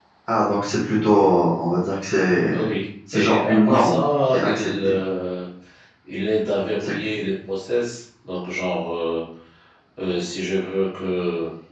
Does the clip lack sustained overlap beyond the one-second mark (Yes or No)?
No